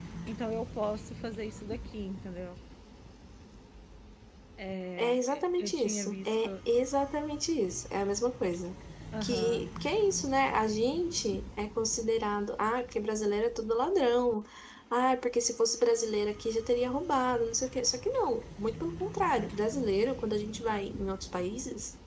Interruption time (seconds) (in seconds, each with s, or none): 5.0 s